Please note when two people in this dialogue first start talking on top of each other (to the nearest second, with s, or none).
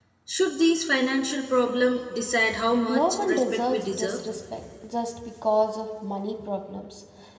3 s